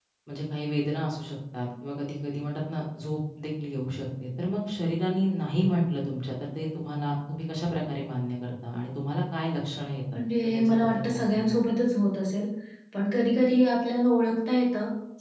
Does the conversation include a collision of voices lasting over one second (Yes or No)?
Yes